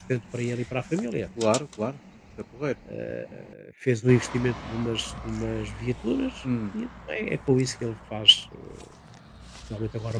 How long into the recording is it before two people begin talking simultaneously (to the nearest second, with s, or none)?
none